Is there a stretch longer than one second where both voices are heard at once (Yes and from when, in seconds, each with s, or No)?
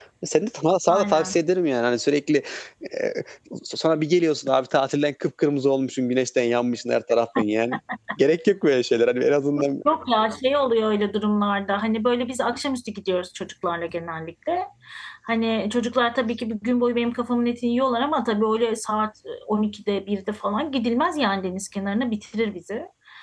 No